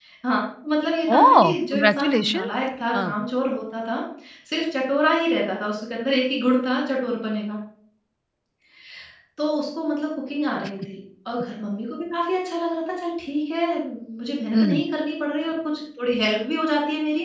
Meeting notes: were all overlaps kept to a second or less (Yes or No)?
No